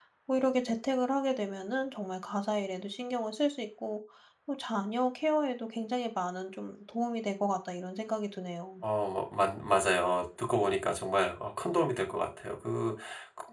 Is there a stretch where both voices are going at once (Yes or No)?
No